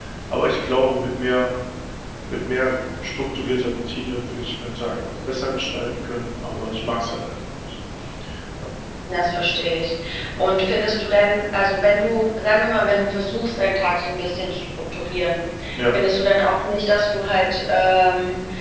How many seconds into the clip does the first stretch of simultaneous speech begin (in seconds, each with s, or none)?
none